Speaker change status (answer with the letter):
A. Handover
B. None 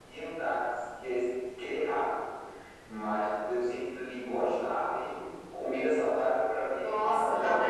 A